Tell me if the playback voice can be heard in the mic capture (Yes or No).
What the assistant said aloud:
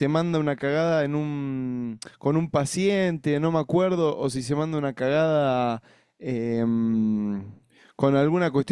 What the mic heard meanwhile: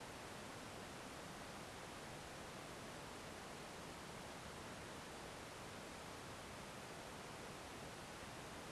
No